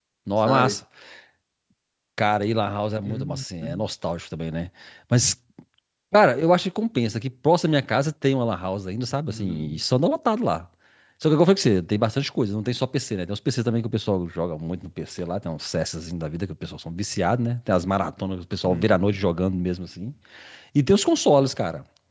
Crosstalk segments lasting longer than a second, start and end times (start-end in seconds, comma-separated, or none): none